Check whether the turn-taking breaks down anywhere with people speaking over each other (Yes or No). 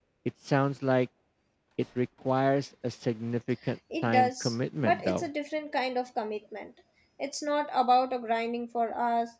Yes